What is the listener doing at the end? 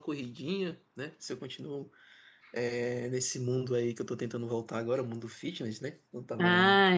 taking over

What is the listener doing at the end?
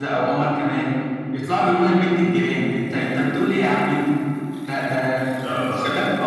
listening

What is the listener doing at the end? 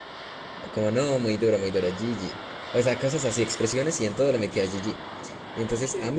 listening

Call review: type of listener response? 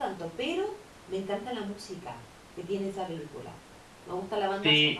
taking over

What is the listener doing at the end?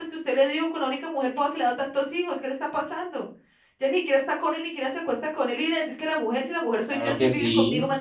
taking over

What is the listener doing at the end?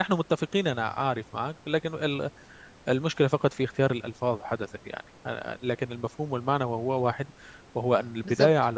listening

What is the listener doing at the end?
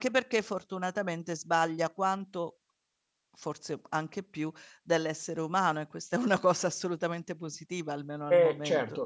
taking over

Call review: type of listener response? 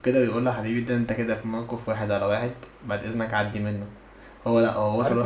listening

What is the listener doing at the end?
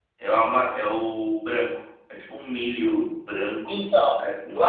taking over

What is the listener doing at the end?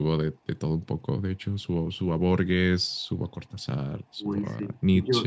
taking over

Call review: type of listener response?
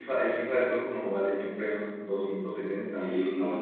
taking over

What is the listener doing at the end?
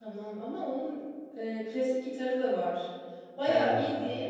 listening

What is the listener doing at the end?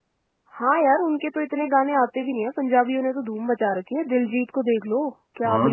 taking over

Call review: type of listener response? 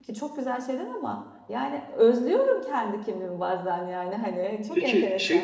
taking over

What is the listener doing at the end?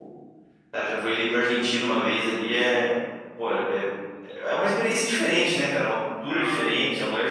listening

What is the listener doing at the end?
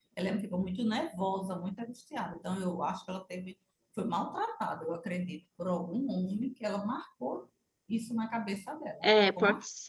taking over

